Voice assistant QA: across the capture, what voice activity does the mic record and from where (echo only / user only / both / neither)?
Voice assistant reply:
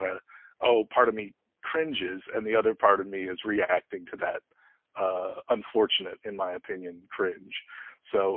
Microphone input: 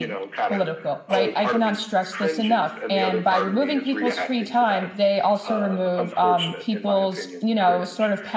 both